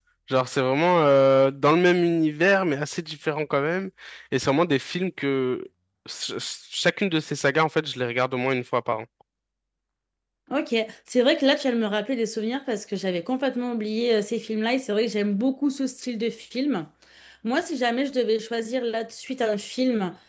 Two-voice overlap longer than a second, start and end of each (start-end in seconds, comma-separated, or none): none